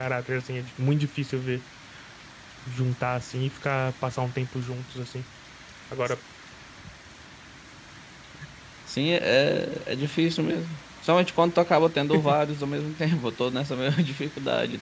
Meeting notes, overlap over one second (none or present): none